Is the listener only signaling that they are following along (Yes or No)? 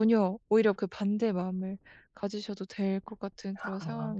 No